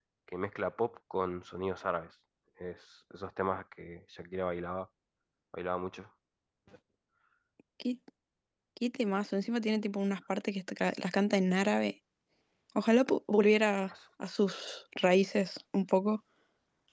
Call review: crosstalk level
none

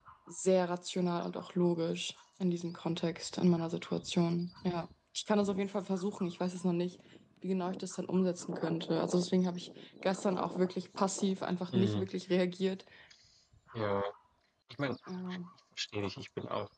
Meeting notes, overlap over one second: none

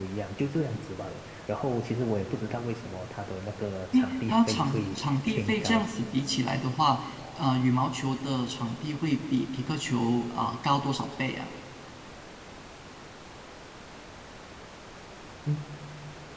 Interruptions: present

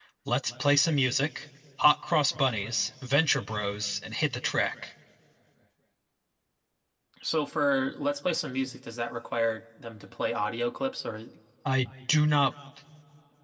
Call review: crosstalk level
none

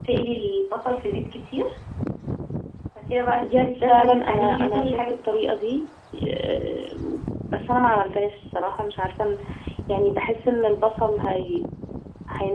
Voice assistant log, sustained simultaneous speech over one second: present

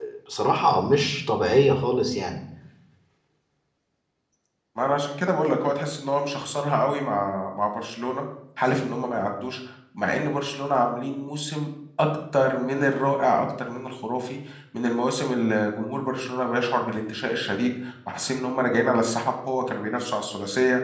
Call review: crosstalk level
none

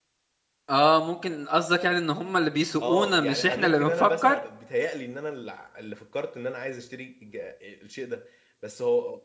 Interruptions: present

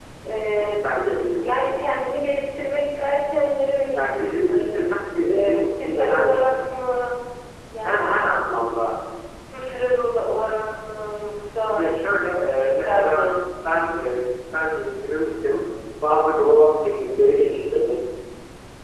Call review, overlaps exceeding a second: present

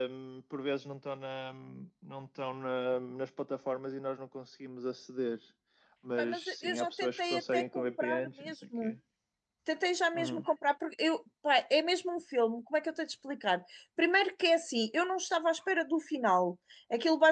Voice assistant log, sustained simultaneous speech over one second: present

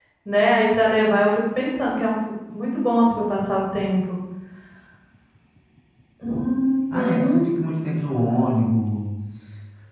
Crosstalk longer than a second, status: none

